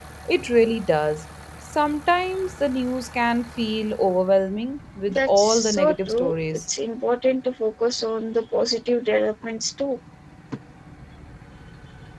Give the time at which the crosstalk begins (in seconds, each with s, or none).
5.1 s